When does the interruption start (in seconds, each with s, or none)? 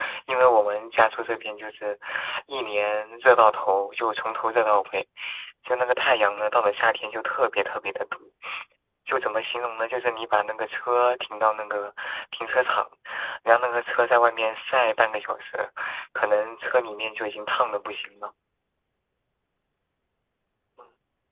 none